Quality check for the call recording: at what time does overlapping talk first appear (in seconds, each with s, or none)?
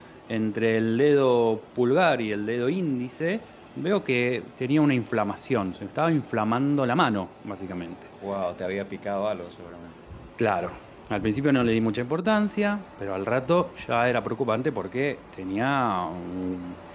none